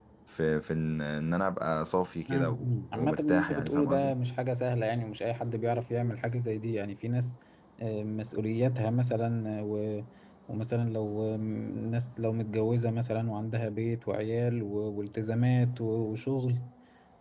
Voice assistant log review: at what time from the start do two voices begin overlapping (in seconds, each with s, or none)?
2.3 s